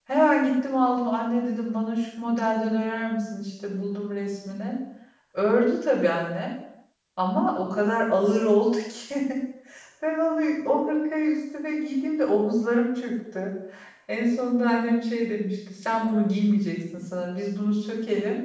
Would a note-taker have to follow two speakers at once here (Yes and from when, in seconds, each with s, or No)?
No